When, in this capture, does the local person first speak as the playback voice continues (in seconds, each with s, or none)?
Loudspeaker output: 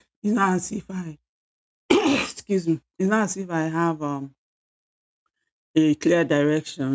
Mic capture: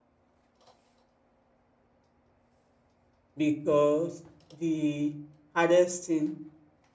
3.3 s